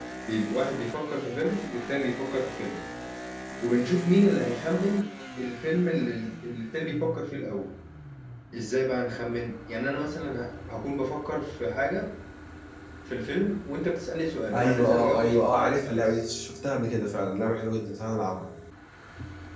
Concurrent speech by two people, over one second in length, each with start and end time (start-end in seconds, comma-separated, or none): 14.5-16.0